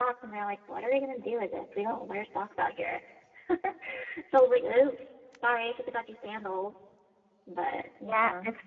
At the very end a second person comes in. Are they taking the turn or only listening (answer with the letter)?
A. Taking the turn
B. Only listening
A